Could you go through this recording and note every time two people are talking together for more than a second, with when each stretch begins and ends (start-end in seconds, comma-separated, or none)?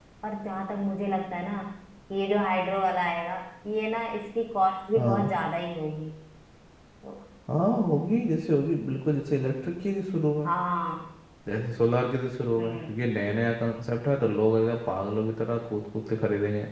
none